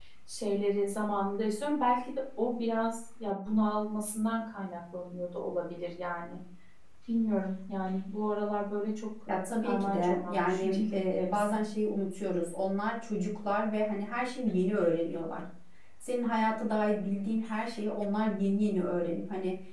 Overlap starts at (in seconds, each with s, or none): 9.6 s